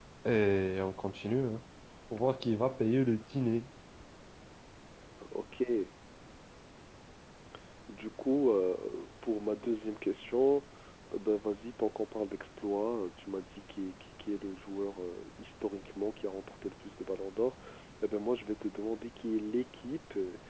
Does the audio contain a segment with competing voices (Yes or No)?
No